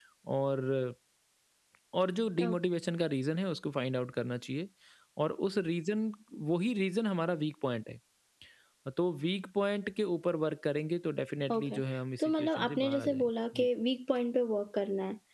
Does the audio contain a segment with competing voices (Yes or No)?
Yes